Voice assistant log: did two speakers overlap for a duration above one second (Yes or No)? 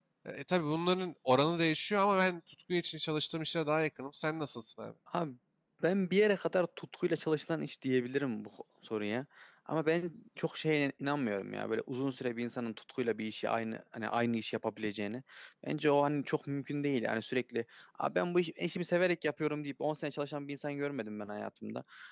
No